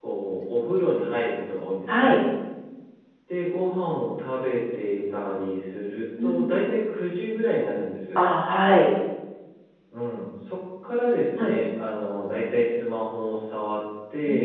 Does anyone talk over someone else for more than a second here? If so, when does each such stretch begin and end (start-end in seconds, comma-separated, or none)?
none